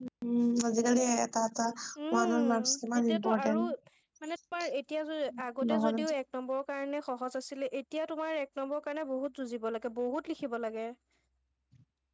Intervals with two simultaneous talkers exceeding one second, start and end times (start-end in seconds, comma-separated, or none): 2.1-3.6